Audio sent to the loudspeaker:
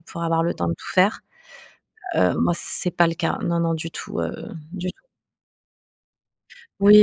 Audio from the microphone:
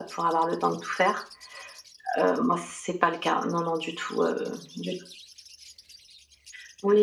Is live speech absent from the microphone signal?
Yes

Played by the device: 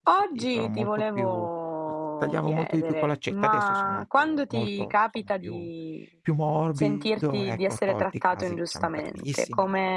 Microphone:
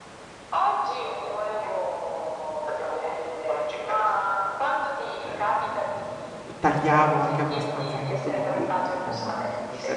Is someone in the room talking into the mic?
Yes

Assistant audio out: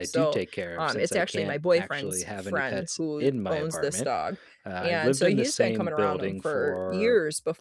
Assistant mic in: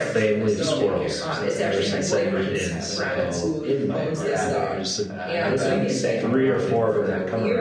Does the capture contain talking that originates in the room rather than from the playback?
Yes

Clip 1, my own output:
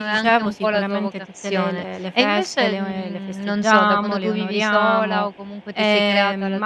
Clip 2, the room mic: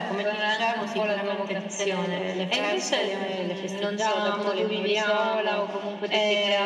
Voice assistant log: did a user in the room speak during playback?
No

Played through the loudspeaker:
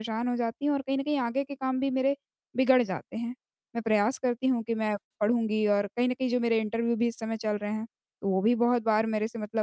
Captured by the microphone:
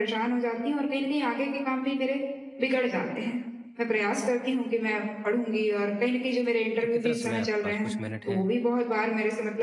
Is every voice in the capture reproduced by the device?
No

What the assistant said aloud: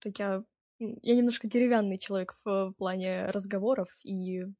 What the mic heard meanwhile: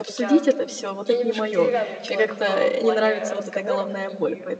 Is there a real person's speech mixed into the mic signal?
Yes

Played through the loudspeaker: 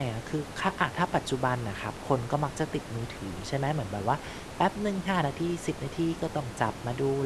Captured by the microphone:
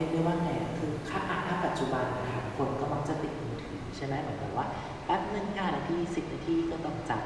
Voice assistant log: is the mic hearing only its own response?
Yes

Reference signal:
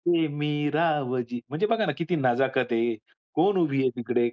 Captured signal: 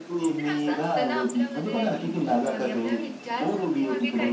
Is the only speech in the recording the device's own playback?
No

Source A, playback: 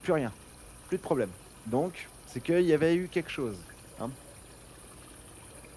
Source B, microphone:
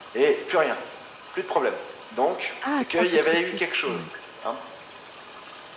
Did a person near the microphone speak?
Yes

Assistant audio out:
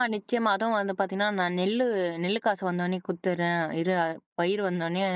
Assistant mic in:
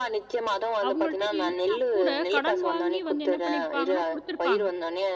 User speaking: Yes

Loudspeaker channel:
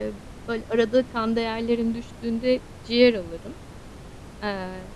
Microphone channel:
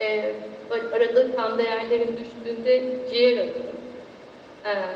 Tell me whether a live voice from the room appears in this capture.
No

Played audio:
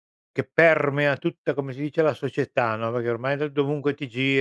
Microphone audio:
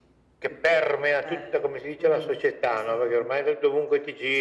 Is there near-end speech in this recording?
Yes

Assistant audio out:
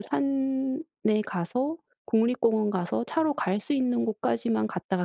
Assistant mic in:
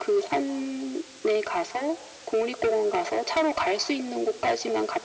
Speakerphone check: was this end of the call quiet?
Yes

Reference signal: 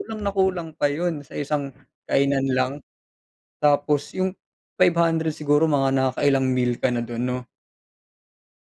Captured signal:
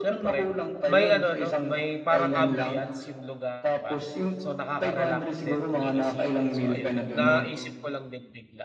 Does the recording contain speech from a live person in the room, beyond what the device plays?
Yes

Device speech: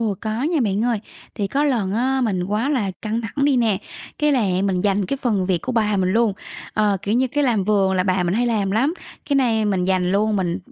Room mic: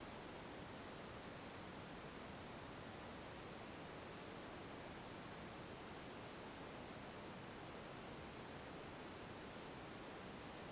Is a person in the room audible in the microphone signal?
No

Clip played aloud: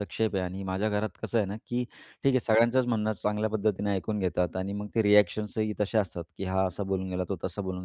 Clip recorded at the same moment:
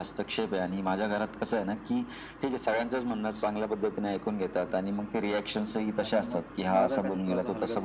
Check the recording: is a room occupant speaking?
Yes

